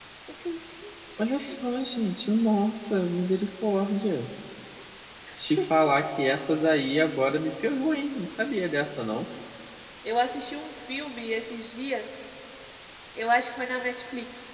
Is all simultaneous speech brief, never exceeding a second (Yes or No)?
Yes